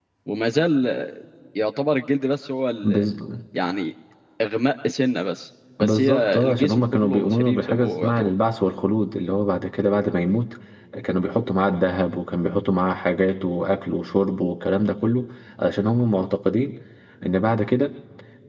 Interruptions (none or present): present